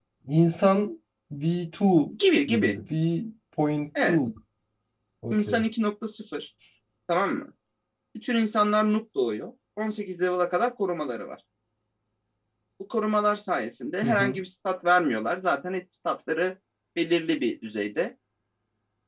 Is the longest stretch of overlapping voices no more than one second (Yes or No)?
Yes